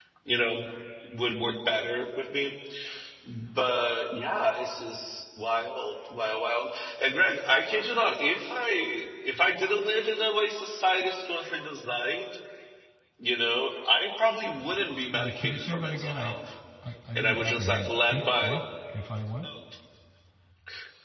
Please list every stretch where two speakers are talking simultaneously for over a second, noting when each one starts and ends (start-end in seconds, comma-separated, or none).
15.1-16.4, 17.1-18.6